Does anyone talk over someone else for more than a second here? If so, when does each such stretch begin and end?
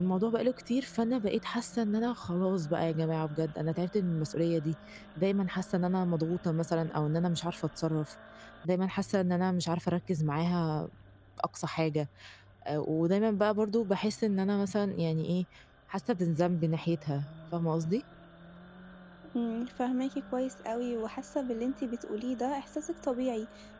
none

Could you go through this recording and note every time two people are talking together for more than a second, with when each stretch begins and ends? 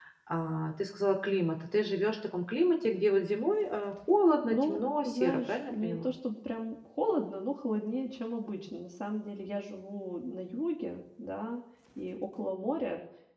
4.5-6.1

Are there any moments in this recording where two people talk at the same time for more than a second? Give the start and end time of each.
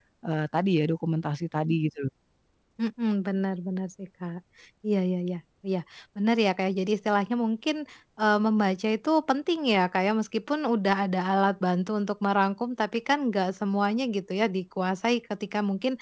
none

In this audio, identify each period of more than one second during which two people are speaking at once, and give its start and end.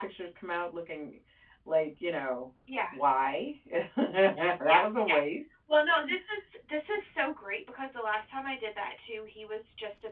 none

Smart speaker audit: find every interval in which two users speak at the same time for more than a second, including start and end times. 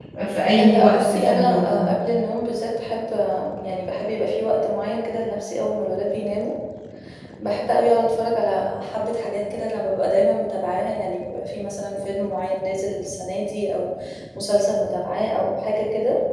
0.6-1.9

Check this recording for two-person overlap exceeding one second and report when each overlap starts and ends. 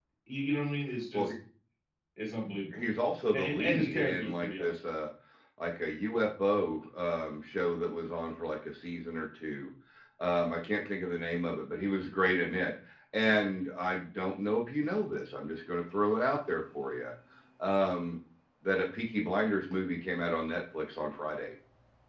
3.3-4.7

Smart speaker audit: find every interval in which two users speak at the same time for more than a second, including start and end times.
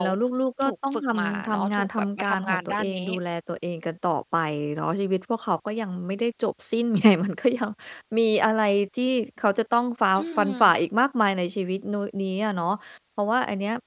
0.6-3.1

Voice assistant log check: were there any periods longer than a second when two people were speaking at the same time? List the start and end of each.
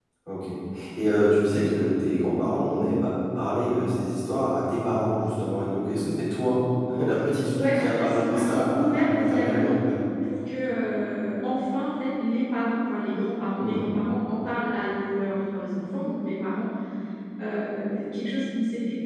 7.5-9.7

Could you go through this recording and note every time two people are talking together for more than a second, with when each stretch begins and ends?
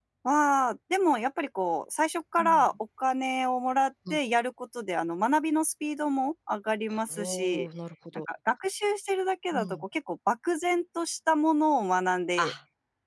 none

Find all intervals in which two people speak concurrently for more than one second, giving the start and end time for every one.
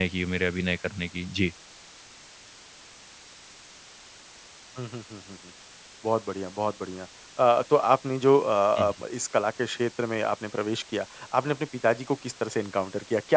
none

